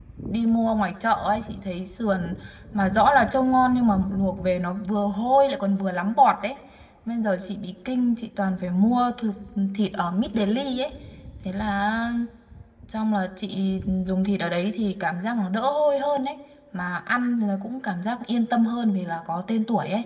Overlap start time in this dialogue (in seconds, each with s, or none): none